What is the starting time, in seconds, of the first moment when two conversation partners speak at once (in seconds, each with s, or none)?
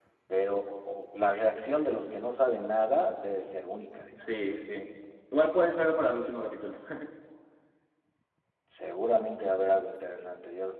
none